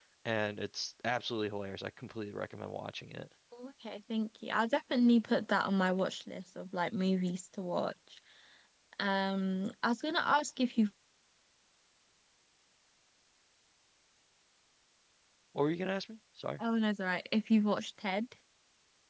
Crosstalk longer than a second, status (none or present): none